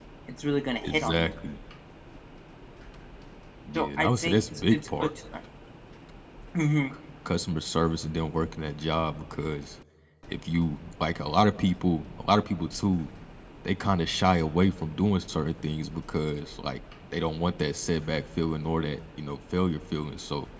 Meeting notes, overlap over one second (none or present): present